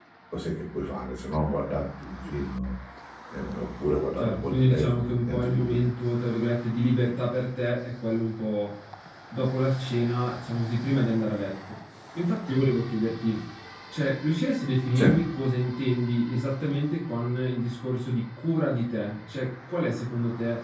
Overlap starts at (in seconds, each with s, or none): 4.2 s